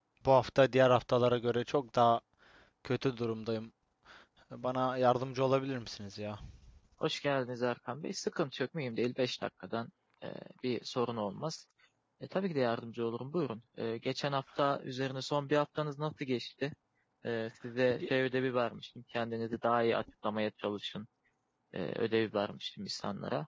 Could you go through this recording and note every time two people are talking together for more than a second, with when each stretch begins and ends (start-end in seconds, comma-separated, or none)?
none